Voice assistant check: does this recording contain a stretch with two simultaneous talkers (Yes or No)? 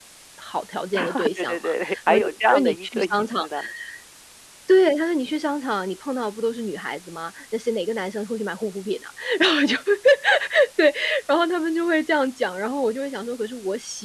Yes